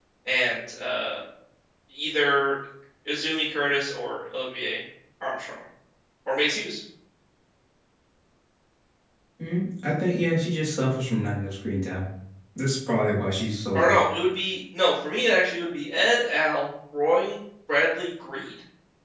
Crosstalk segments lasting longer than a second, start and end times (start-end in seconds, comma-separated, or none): none